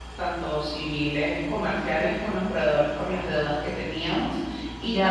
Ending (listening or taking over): taking over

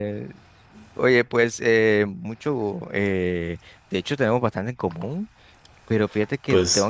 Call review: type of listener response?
listening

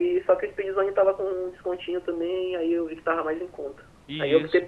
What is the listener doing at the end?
listening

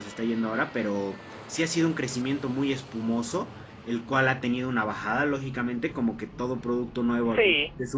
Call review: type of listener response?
listening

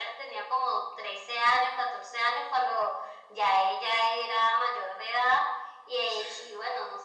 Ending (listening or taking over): listening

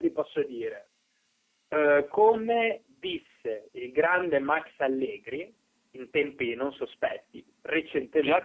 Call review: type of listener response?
taking over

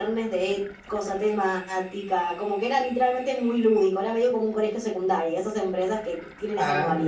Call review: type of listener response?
taking over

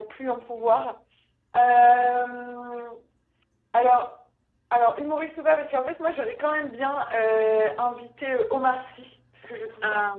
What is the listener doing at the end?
listening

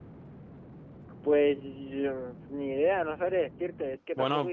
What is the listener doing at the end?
taking over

